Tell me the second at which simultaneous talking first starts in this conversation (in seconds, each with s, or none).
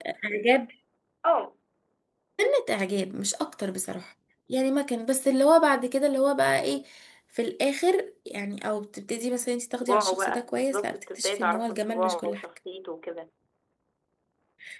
9.8 s